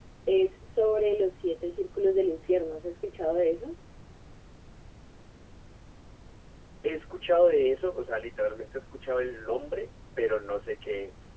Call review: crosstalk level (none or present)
none